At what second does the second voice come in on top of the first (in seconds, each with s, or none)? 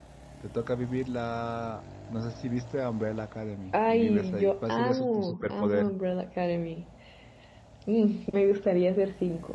3.7 s